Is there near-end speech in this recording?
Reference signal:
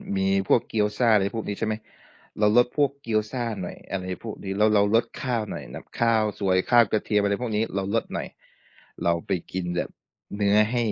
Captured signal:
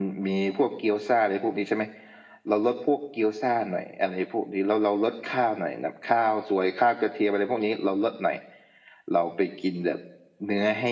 No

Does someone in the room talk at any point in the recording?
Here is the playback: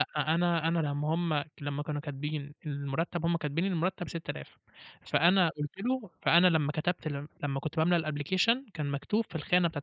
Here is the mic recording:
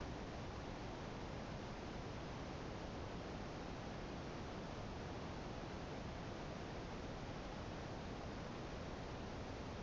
No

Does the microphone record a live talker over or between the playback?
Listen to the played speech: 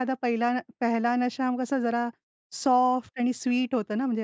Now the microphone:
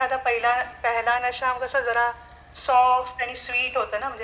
No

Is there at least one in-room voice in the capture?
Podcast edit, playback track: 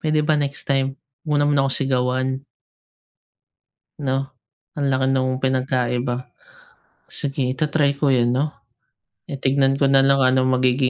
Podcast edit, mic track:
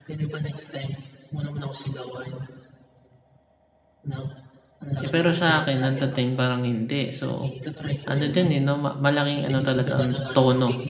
Yes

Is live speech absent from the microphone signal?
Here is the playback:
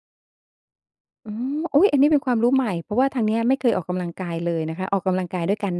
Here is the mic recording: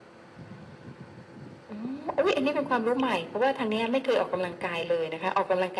Yes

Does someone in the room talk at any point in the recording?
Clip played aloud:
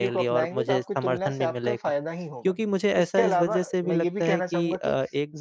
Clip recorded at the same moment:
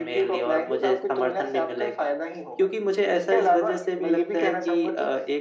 No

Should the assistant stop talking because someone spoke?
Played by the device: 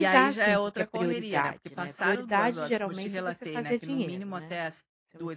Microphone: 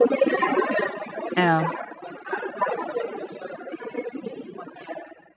Yes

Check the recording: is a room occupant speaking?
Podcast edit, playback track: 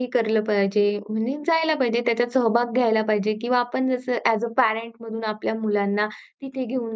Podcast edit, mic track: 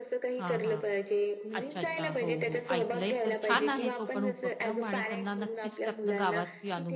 Yes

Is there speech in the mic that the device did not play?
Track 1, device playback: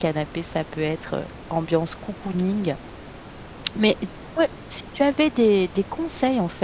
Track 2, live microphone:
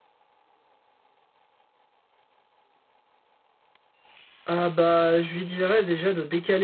Yes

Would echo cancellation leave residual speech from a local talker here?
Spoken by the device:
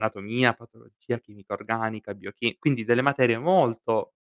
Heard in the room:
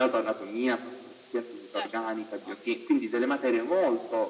Yes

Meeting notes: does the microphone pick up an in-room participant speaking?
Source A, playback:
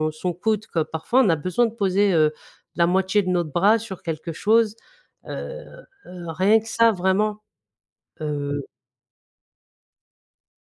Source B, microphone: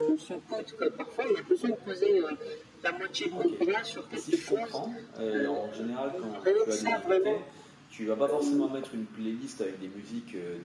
Yes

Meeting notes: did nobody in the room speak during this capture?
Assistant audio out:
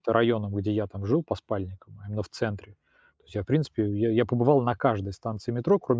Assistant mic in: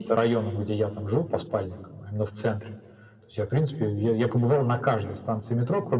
Yes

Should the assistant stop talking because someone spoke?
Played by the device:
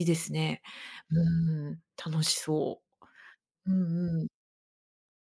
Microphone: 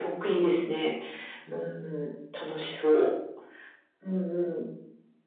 No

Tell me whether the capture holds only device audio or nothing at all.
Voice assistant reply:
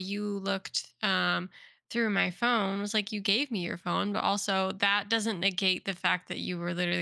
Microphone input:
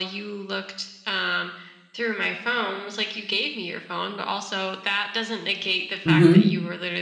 No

